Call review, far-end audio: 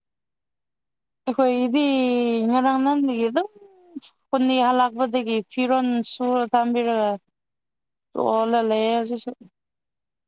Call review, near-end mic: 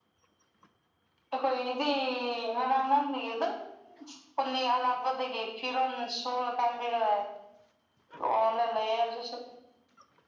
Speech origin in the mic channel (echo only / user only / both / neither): echo only